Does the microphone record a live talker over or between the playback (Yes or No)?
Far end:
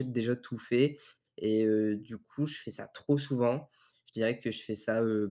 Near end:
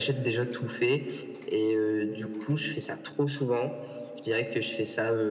No